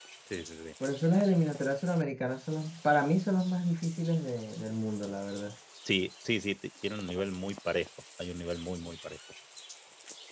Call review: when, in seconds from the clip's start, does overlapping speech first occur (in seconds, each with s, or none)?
none